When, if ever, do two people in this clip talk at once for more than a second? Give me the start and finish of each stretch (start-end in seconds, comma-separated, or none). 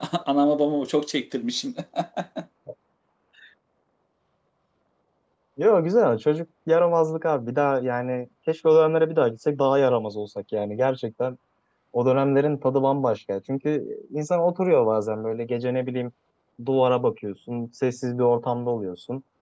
none